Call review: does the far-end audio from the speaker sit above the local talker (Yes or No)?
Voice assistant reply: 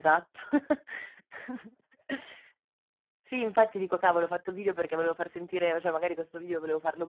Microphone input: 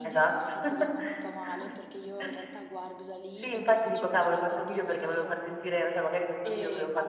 Yes